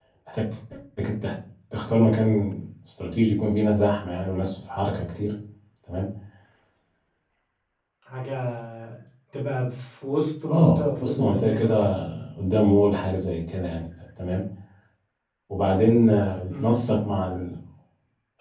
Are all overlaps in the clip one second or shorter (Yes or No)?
No